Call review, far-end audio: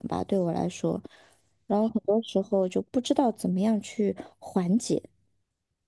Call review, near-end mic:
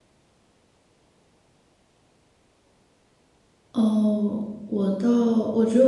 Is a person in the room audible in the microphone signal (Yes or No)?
Yes